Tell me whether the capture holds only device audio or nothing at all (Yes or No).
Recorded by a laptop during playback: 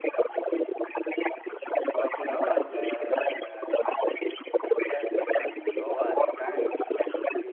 No